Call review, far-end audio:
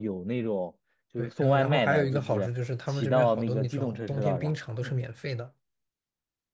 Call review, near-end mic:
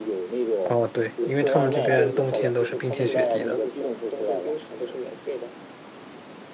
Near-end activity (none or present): present